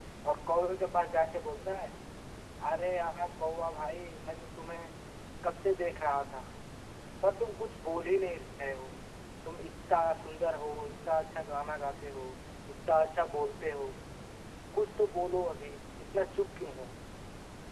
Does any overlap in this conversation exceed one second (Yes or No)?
No